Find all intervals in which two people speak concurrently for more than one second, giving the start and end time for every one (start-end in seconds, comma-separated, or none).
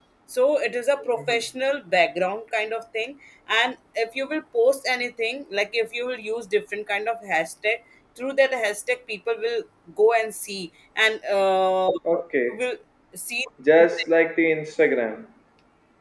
none